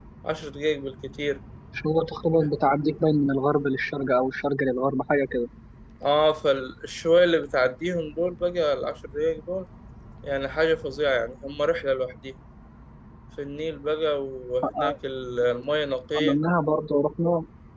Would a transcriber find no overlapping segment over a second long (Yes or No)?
Yes